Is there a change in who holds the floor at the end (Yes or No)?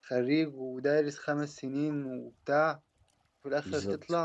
No